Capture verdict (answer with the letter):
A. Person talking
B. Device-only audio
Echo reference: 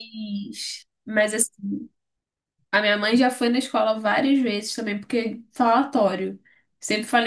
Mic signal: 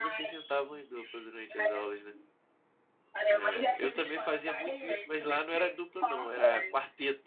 A